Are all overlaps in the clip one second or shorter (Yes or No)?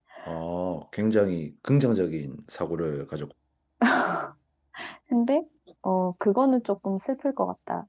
Yes